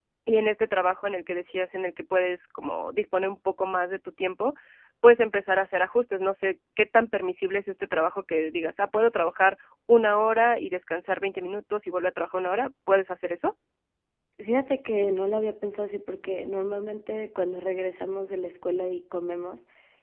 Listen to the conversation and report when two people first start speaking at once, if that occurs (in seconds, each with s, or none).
none